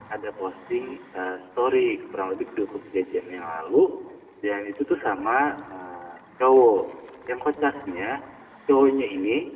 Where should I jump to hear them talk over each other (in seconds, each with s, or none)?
none